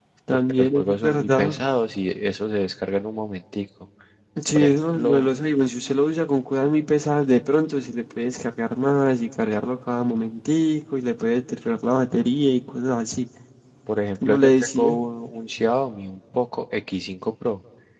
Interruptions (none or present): present